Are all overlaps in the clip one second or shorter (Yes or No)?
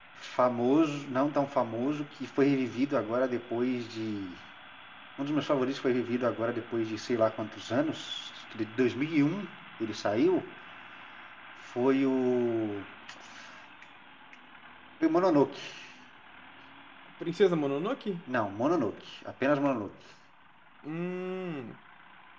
Yes